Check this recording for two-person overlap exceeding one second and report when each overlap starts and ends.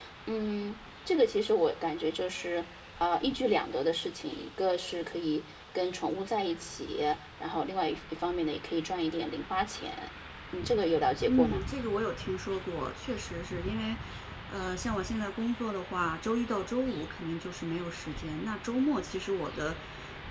none

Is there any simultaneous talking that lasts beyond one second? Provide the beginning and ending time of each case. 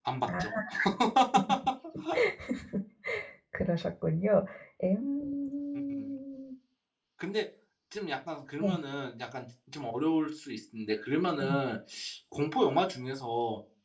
none

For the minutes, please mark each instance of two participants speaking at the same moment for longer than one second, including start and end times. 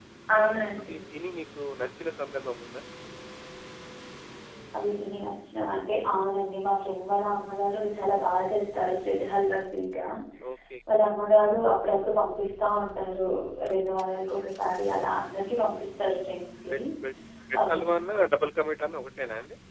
none

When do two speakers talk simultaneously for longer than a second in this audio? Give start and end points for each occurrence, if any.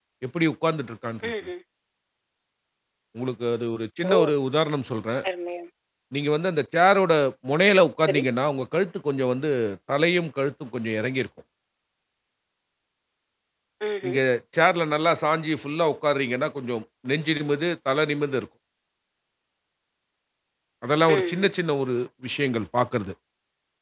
none

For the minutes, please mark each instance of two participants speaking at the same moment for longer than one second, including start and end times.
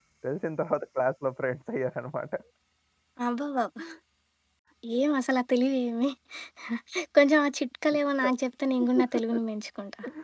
none

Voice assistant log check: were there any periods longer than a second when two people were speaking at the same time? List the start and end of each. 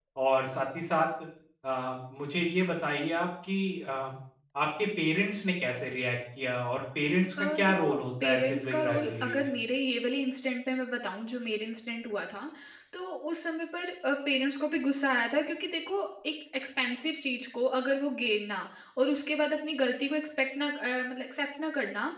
7.4-9.5

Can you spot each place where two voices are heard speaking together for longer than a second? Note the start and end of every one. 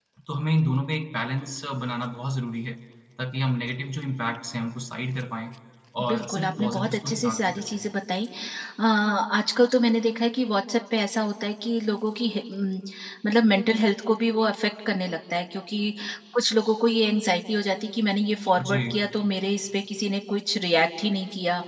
6.1-7.9

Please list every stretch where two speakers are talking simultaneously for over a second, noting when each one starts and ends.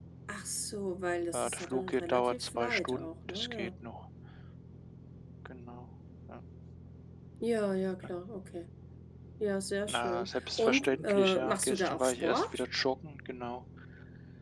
1.3-3.7, 9.9-12.6

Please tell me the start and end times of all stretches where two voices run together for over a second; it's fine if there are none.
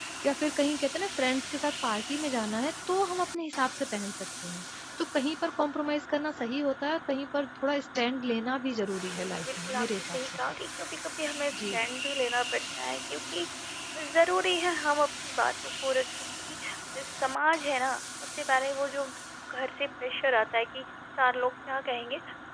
9.1-10.4

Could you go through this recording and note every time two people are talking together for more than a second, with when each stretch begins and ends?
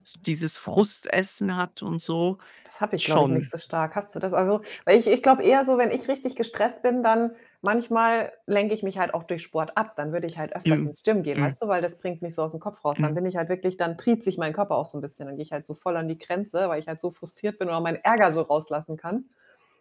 none

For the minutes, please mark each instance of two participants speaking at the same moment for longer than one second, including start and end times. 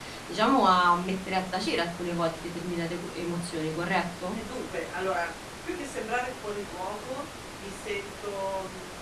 none

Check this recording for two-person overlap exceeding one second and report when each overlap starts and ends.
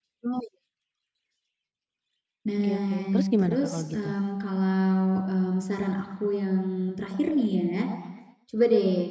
2.6-4.1

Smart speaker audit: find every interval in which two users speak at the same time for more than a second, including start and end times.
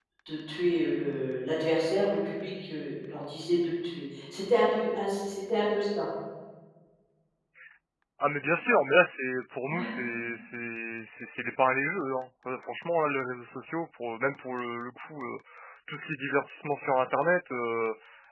none

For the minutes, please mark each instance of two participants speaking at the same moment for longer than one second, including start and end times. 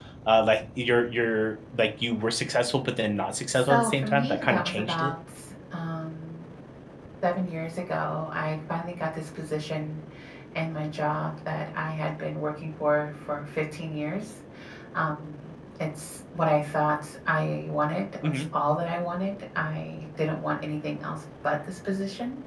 3.5-5.1

